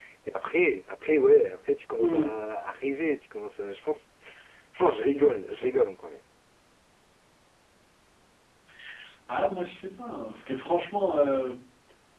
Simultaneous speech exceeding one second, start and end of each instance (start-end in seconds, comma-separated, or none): none